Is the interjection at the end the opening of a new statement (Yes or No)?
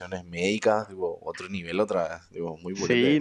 Yes